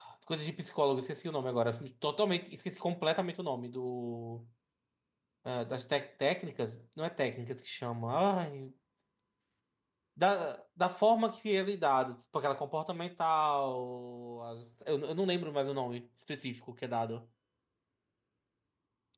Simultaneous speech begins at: none

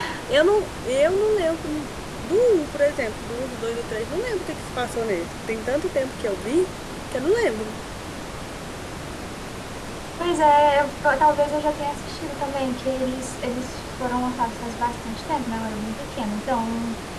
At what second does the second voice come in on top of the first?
none

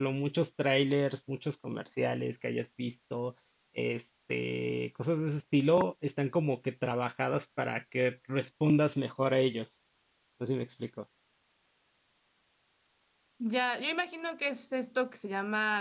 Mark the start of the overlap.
none

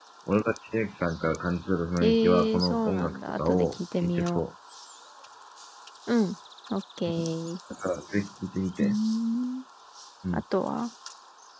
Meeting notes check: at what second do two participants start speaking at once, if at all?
2.0 s

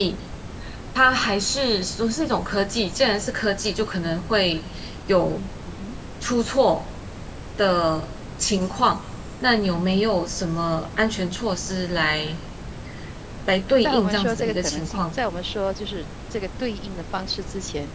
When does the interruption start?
13.8 s

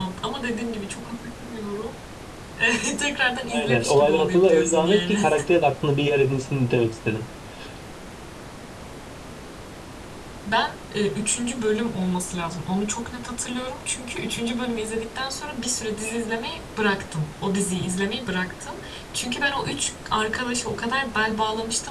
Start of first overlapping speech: 3.5 s

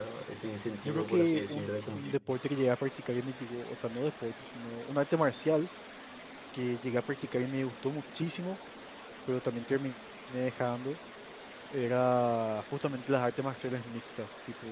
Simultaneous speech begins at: 0.8 s

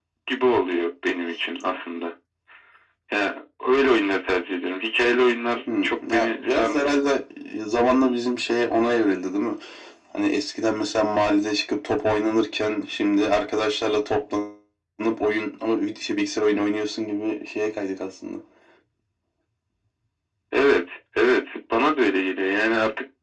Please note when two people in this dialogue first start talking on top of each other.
5.7 s

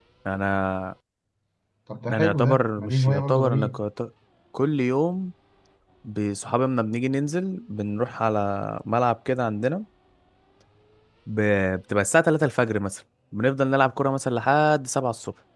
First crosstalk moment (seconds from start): 2.1 s

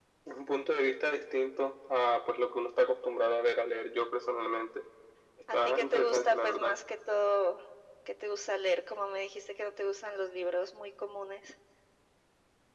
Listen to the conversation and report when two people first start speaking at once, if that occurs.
5.5 s

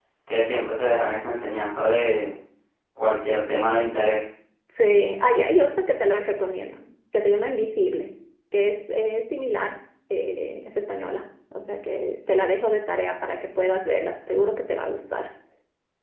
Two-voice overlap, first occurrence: none

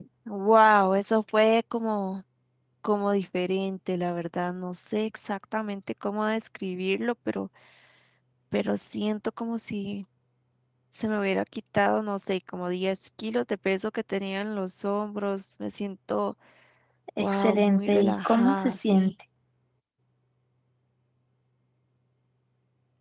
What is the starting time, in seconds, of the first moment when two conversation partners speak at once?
17.2 s

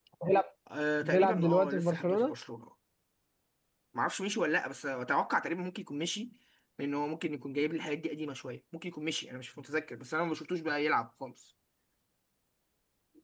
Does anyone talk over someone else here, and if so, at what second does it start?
1.0 s

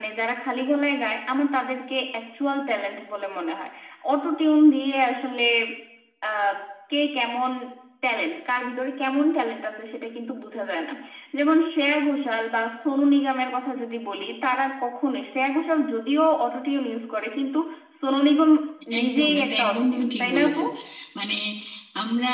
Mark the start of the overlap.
19.0 s

